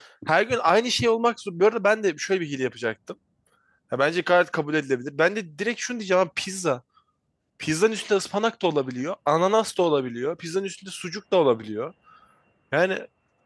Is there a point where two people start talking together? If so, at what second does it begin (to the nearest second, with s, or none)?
none